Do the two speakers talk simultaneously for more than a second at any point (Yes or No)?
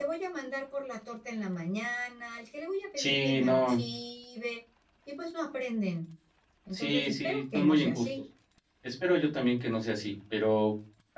Yes